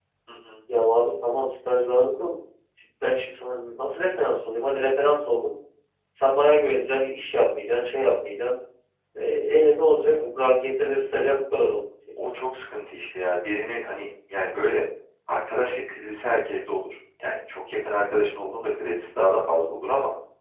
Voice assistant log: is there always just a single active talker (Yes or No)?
Yes